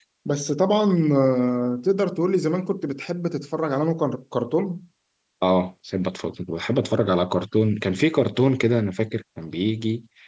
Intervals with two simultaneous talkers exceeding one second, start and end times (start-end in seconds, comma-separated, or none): none